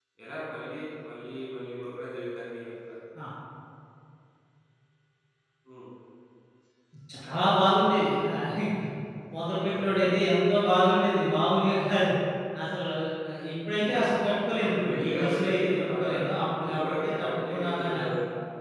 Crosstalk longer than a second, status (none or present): present